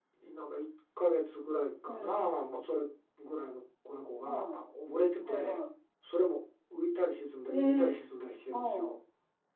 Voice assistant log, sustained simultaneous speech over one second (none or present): none